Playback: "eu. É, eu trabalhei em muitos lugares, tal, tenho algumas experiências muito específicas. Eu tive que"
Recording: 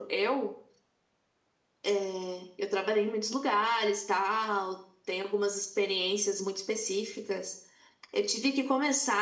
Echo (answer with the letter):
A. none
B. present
B